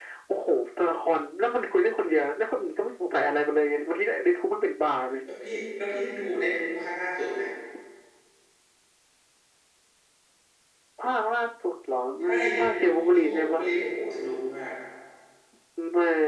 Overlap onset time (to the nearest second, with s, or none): 12 s